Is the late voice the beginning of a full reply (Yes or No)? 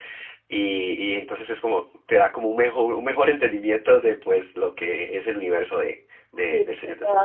Yes